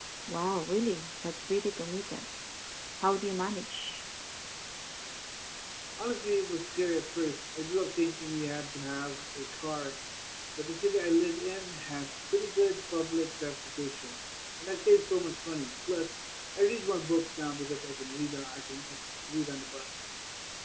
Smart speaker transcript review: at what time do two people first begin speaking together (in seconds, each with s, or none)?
none